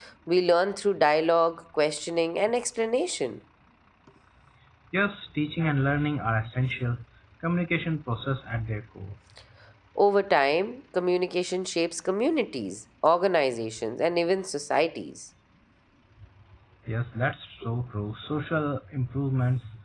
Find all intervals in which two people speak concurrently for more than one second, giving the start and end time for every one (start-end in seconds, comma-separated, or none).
none